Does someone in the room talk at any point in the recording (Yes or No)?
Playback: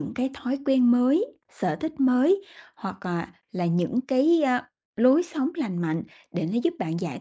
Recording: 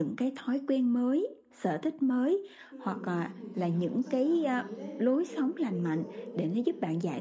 Yes